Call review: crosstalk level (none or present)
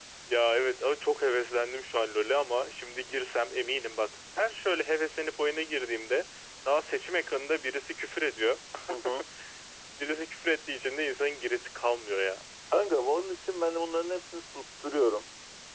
none